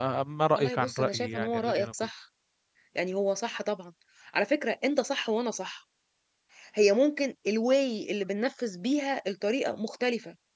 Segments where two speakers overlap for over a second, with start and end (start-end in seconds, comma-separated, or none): 0.5-1.9